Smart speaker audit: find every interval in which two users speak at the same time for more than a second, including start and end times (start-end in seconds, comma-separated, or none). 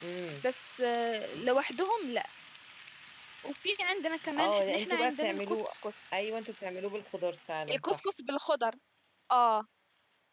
4.4-5.6